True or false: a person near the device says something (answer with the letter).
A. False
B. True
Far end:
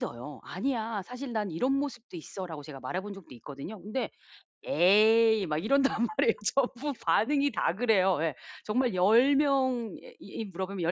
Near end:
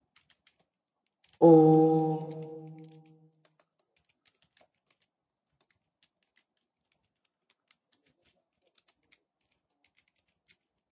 B